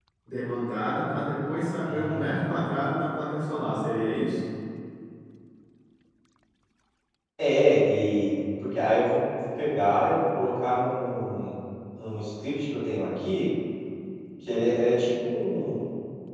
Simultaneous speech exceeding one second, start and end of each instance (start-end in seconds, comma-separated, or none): none